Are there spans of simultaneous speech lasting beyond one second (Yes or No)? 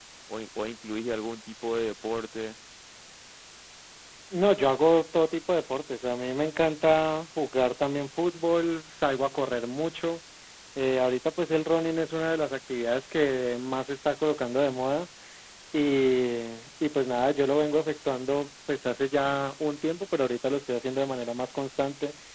No